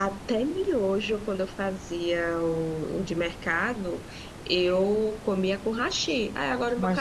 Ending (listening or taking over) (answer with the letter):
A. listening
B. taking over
B